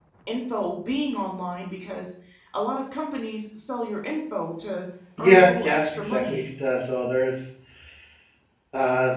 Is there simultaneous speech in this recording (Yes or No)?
Yes